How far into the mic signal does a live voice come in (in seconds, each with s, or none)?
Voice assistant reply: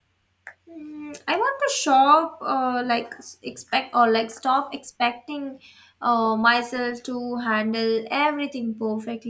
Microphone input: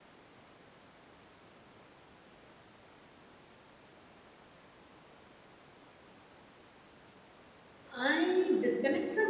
7.9 s